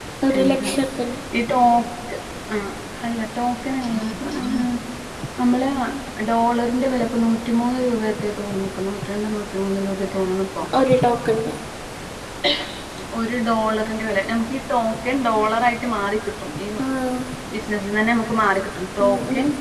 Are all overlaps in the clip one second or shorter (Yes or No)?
Yes